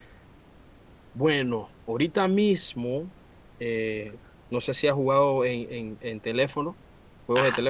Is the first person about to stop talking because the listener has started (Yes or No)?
Yes